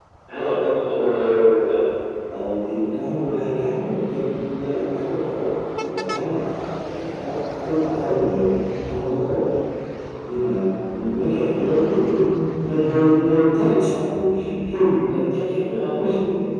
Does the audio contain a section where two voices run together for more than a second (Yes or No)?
No